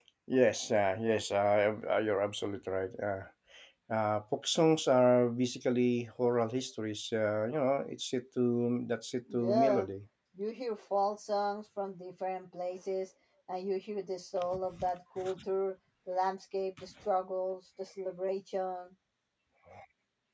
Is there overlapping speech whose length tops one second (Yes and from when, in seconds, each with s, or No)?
No